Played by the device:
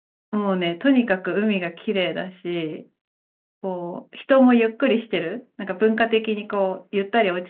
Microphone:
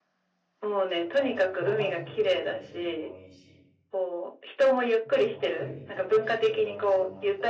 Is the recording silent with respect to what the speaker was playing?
No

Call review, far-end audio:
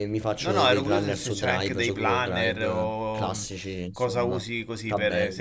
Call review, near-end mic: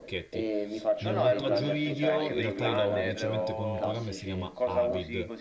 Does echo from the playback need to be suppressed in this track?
Yes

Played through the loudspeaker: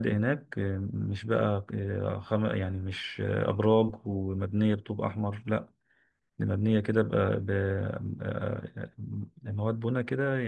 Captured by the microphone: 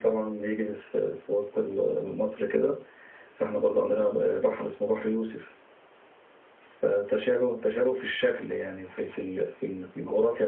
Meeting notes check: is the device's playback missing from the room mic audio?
Yes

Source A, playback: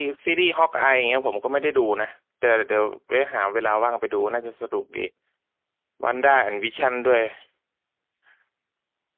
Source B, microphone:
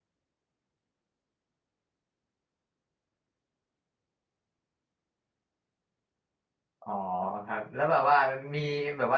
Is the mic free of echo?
Yes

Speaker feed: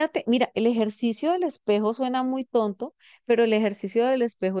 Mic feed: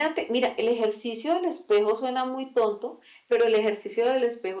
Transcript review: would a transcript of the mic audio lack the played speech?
No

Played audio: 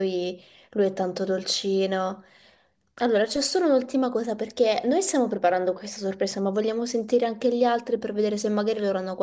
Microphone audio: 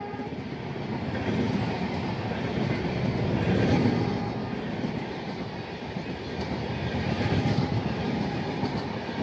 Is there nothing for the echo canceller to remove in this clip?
Yes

